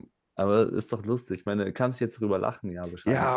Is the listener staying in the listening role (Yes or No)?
No